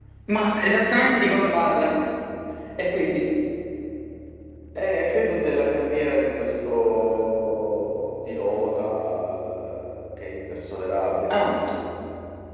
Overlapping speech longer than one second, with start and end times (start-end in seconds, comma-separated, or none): none